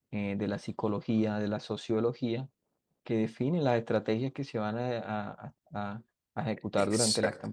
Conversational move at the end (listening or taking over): listening